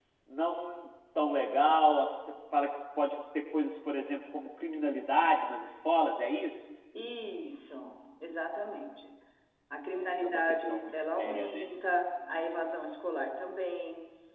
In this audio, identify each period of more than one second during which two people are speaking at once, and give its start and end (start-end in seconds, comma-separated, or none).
10.0-11.7